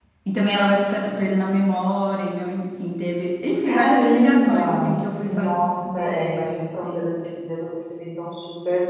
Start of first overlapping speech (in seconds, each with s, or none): 3.6 s